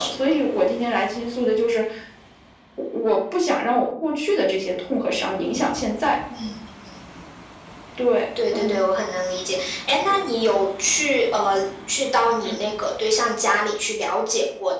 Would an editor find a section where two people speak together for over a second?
No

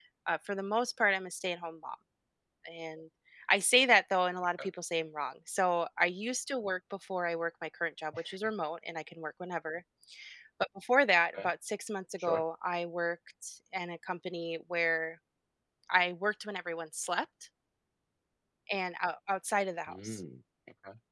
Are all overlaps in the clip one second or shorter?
Yes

